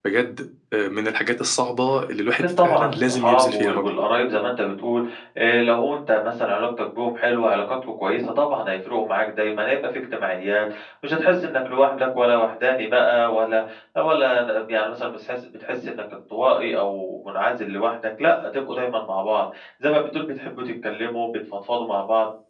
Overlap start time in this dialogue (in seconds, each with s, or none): 2.4 s